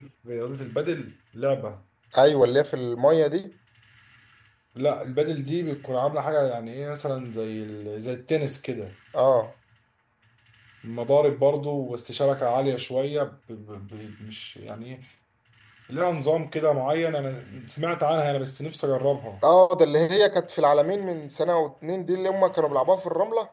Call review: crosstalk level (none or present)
none